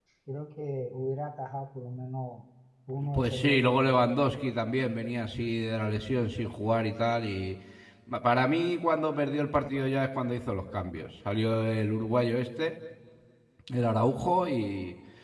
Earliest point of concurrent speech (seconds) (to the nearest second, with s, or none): 3 s